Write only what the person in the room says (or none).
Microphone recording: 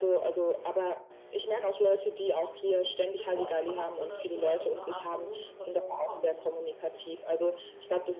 bevor es überhaupt zu 'ner so 'ner irgend 'ner Art von Notsituation kommt?